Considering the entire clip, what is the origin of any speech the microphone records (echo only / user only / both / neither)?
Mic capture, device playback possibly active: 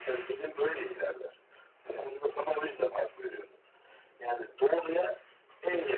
both